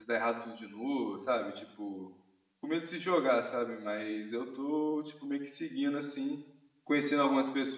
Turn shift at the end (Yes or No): No